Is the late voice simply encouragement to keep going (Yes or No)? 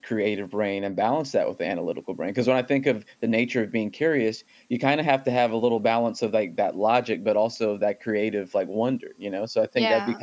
Yes